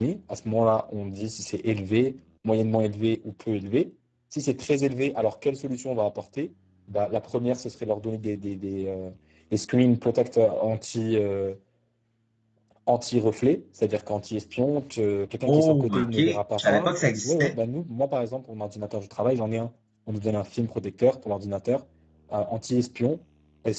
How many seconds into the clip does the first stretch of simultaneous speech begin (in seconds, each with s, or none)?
15.4 s